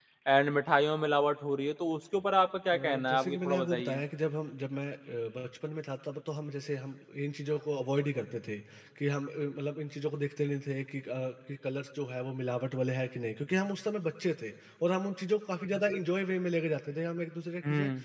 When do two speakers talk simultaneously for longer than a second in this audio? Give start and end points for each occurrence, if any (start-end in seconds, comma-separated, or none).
2.7-4.0